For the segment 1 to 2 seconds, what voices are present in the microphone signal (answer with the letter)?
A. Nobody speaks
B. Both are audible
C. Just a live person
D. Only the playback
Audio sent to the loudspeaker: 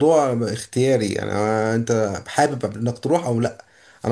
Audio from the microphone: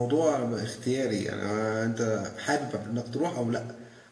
D